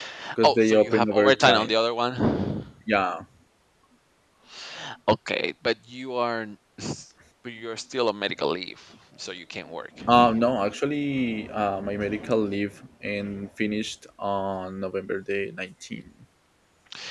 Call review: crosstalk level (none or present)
present